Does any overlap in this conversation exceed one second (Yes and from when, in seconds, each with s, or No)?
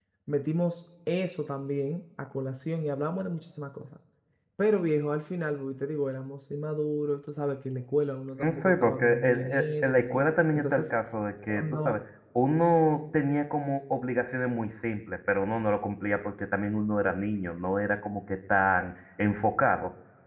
Yes, from 8.4 s